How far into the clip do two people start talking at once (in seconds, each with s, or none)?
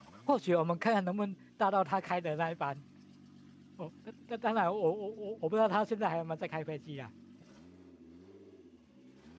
none